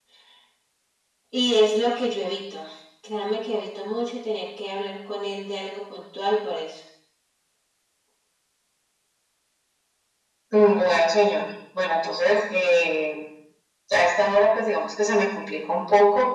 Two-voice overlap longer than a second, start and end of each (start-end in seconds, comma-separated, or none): none